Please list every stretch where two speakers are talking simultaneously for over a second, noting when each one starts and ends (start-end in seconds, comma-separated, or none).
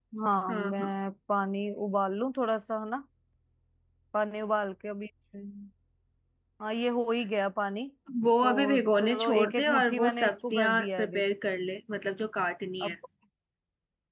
8.4-11.1